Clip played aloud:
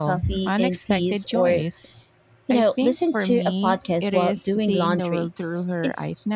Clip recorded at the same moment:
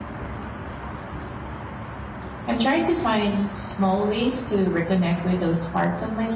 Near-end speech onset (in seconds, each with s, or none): 2.5 s